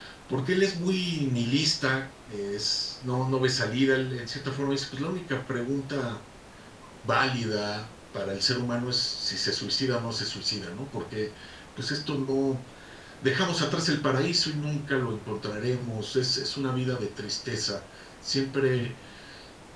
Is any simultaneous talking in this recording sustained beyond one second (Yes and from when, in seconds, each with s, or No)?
No